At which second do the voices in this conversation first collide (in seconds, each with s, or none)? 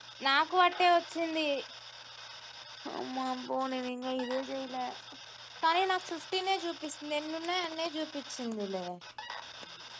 none